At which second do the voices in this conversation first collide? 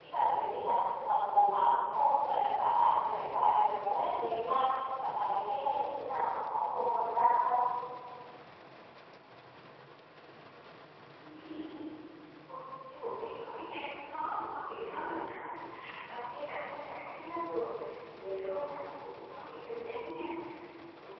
none

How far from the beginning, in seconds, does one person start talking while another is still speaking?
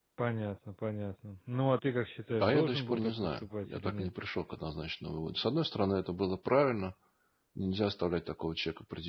2.4 s

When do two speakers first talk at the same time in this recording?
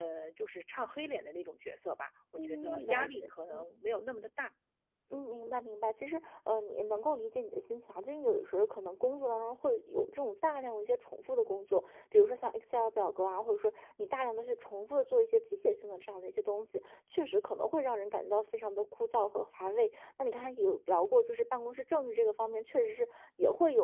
2.4 s

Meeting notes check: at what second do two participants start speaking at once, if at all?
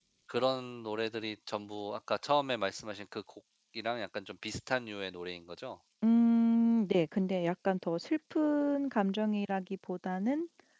none

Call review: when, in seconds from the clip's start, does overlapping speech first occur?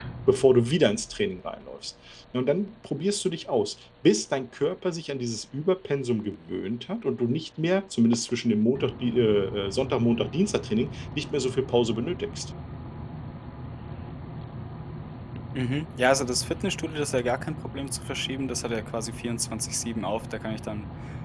none

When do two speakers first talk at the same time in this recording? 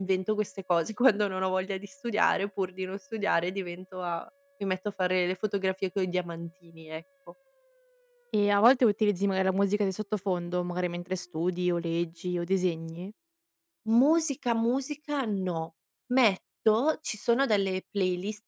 none

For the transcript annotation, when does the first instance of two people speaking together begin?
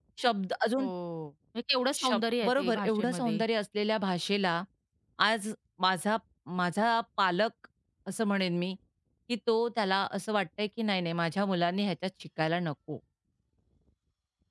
1.9 s

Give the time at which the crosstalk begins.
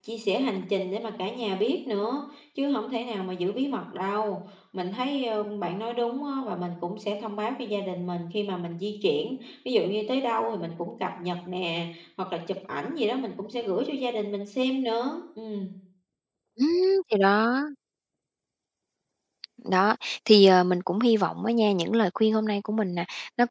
none

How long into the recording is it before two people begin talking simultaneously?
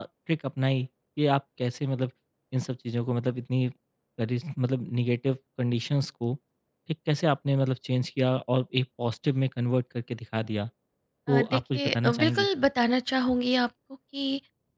11.3 s

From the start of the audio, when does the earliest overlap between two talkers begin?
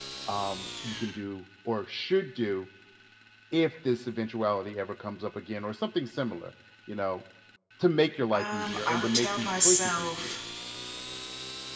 8.3 s

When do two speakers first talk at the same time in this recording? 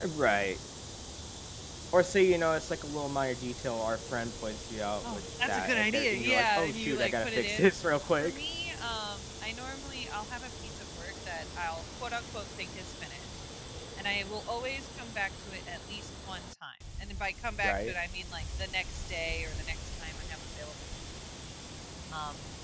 5.0 s

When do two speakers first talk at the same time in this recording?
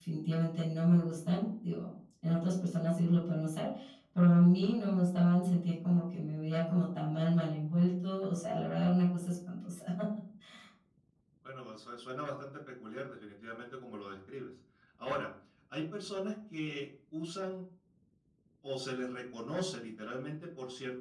none

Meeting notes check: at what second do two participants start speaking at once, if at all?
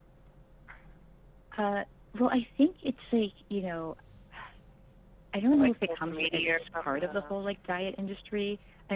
5.5 s

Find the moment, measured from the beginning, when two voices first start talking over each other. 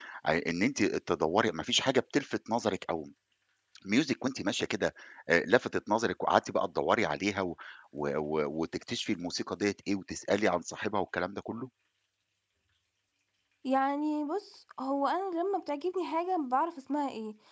none

